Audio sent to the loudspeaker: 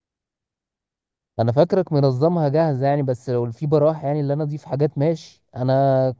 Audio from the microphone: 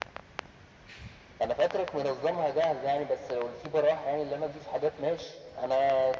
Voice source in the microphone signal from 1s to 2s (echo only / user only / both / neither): echo only